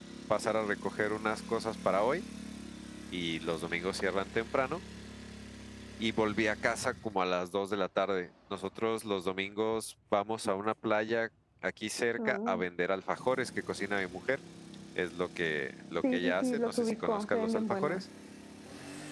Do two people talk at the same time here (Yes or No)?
Yes